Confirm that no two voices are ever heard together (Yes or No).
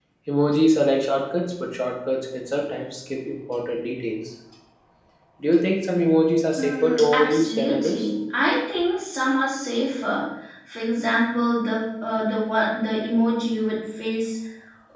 No